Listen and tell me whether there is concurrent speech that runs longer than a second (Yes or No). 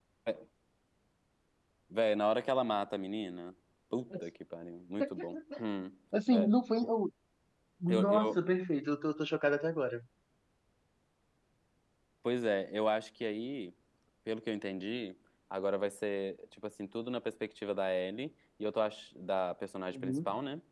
No